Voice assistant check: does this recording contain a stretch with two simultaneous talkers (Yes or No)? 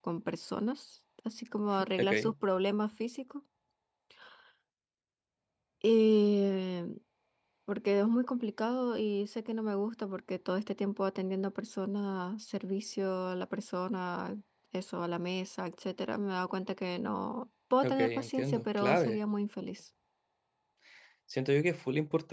Yes